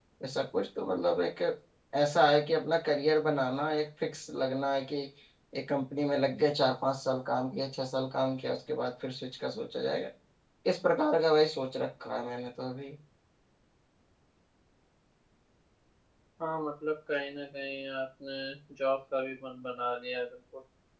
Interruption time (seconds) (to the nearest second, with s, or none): none